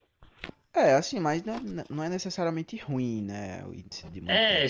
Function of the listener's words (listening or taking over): taking over